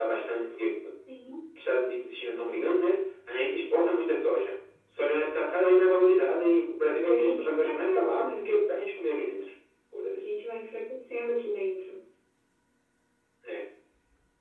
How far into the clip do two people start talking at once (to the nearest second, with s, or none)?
7 s